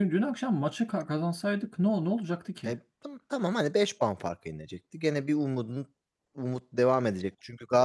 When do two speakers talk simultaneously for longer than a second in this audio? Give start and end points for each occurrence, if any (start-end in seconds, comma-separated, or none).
none